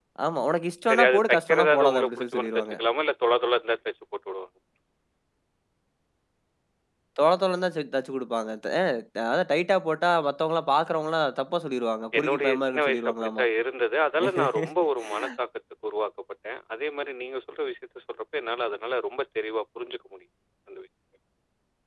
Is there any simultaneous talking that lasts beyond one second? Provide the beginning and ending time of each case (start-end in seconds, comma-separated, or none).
0.9-2.8, 12.2-13.4